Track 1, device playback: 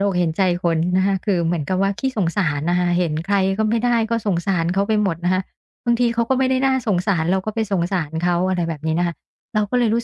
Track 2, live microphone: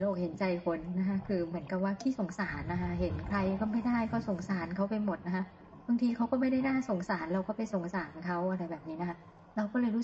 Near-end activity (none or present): none